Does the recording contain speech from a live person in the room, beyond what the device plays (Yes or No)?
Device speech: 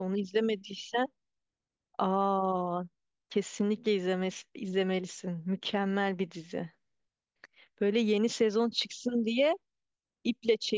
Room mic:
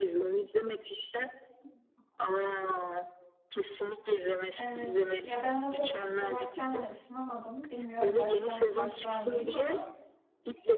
Yes